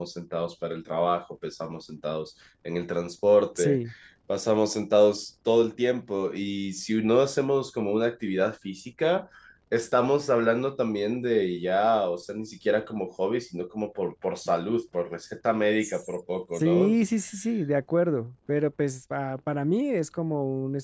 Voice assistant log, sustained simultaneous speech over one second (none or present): none